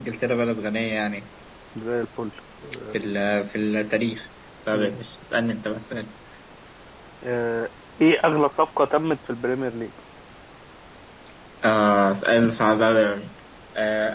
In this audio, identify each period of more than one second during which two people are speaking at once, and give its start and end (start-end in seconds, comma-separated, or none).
none